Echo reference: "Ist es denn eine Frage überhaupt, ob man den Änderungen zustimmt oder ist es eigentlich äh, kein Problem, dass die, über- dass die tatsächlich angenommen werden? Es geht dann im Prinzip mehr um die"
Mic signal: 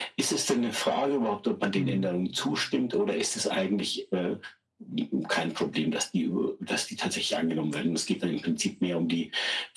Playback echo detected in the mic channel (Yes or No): Yes